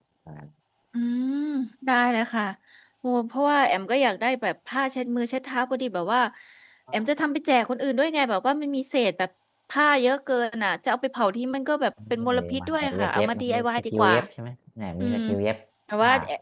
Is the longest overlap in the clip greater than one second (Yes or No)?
Yes